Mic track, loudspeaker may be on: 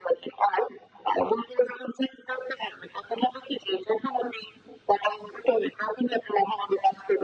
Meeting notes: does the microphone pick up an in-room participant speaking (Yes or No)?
No